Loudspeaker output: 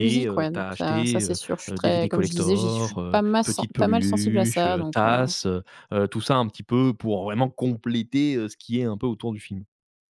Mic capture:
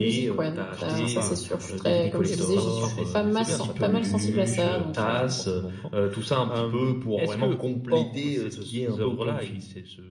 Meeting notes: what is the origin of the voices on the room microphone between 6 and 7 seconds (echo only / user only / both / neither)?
both